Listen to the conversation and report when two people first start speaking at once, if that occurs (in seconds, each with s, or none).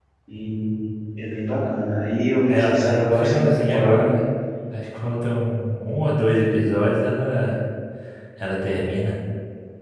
2.5 s